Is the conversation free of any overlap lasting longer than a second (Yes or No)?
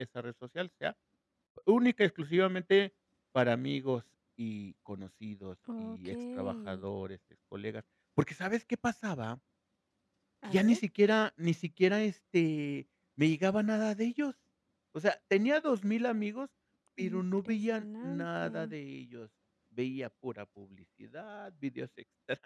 No